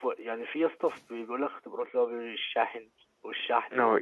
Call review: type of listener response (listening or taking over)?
taking over